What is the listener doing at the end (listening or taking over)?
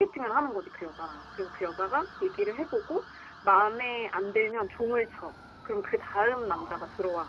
taking over